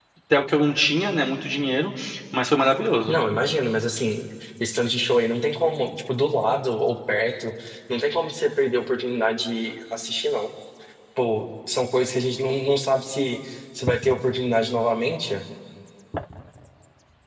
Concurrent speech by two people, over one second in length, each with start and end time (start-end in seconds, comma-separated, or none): none